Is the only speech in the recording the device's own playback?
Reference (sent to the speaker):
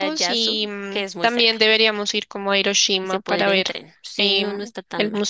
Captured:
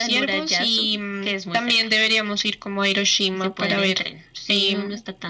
Yes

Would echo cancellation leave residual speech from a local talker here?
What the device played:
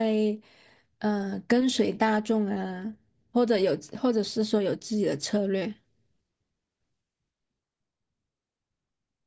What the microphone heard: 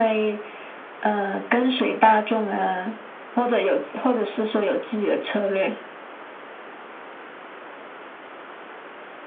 No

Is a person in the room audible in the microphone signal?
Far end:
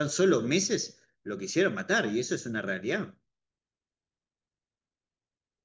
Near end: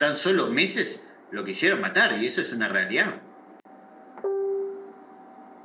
No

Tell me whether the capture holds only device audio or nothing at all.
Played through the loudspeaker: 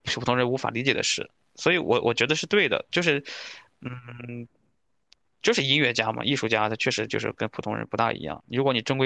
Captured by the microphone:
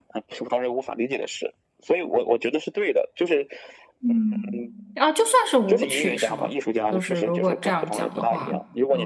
No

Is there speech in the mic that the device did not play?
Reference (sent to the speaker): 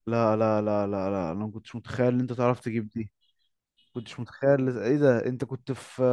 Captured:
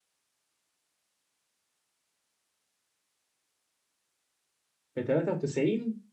Yes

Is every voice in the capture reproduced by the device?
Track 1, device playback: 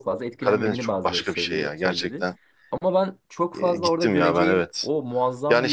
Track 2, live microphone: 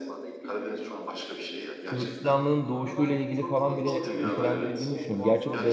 No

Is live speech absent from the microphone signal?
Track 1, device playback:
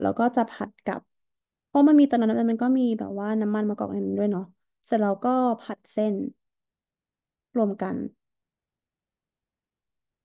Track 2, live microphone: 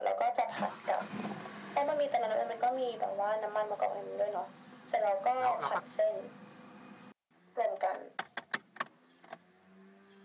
No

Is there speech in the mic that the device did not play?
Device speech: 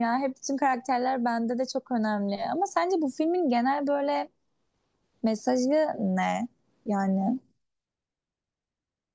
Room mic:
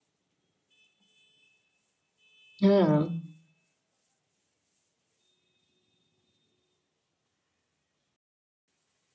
Yes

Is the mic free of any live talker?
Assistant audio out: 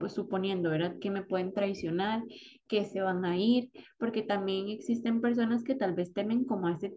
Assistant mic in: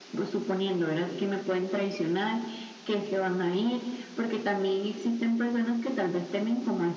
Yes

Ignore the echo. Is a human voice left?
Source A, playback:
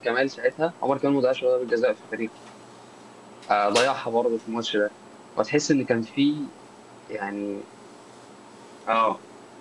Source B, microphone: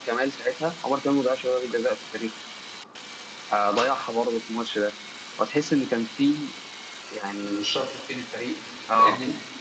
Yes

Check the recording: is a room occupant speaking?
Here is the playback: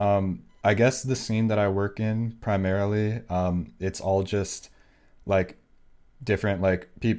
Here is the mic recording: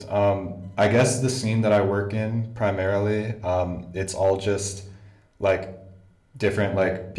No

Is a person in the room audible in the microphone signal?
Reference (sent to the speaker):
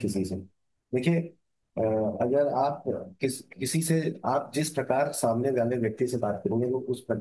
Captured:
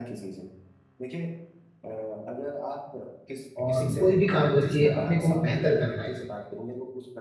Yes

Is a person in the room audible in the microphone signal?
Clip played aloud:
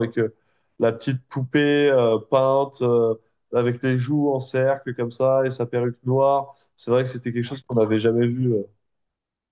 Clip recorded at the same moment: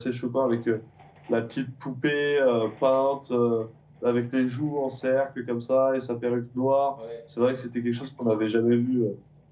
Yes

